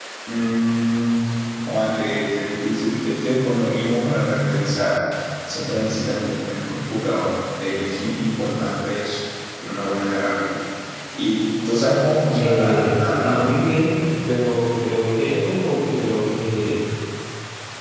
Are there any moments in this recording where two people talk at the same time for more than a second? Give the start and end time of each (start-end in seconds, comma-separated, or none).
12.3-13.6